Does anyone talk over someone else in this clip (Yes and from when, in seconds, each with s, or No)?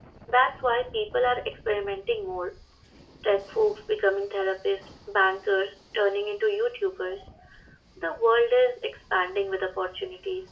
No